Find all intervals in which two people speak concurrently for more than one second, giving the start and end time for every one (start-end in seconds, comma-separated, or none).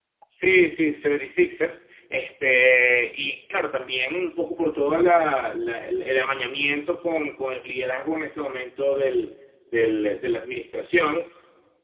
none